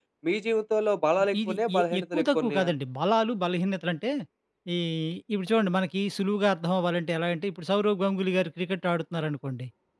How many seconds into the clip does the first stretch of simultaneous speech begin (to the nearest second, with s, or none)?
1 s